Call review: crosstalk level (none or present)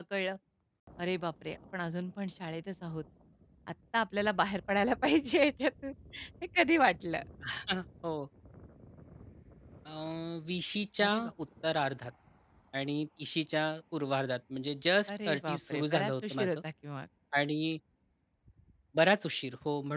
present